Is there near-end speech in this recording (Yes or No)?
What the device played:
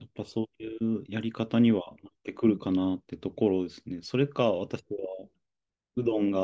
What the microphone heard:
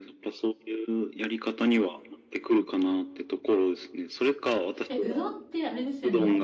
Yes